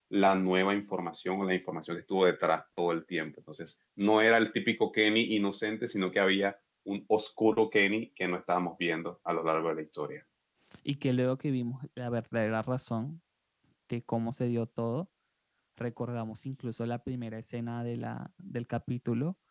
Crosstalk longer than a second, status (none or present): none